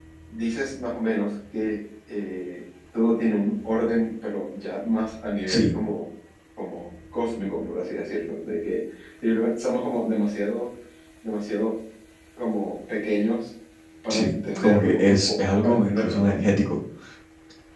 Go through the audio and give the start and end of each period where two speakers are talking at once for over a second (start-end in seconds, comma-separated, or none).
14.1-16.4